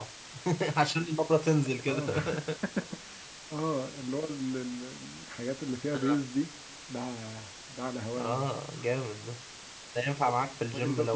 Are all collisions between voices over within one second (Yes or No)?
Yes